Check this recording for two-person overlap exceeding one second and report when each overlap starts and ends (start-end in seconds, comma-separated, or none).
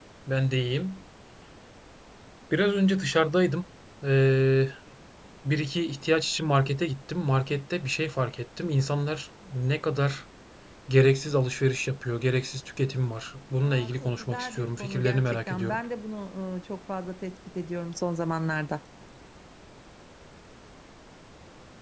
13.6-15.8